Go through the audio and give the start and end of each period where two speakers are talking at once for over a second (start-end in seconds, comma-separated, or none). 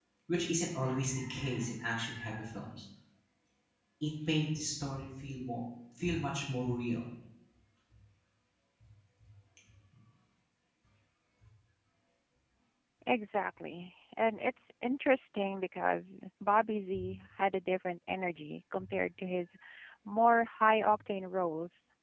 none